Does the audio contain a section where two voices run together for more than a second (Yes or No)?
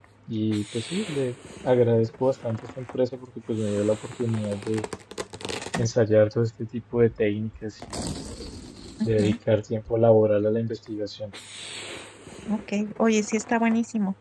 No